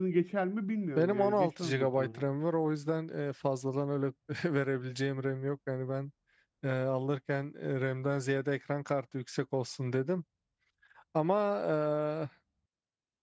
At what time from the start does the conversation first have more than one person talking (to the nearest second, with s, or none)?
1 s